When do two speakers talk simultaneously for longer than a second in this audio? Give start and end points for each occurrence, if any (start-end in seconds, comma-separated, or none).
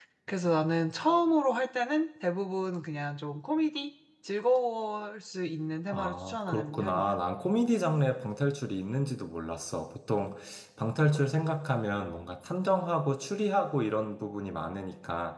5.9-7.1